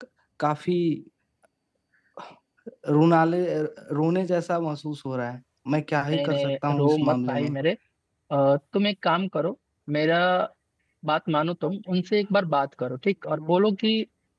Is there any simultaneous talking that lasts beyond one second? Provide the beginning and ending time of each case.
6.1-7.5

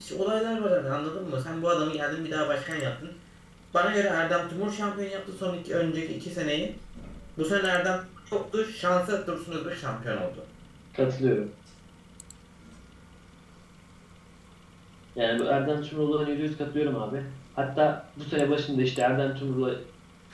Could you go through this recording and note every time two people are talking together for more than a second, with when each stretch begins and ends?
none

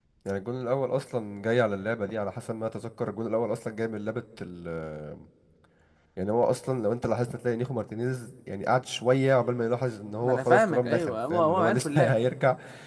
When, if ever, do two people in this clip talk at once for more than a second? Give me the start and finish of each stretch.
10.2-12.3

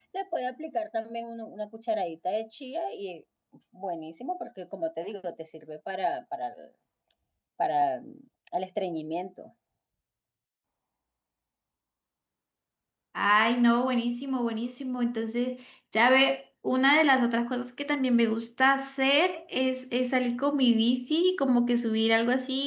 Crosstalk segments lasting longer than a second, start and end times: none

